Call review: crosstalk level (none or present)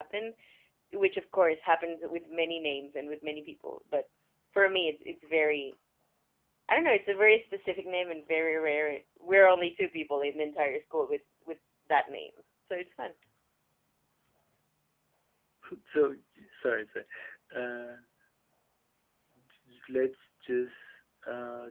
none